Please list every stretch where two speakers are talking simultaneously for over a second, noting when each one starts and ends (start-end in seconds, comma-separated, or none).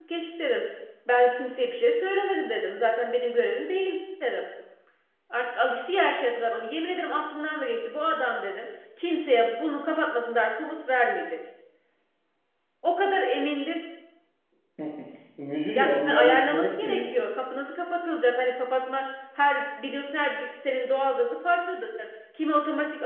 15.6-17.2